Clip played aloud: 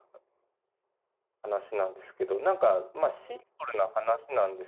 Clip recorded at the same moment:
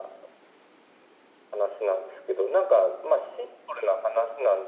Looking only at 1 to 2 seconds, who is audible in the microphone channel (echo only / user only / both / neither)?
echo only